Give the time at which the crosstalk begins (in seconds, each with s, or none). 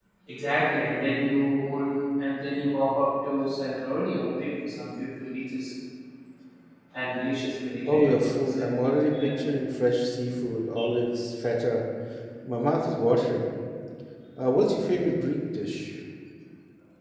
7.9 s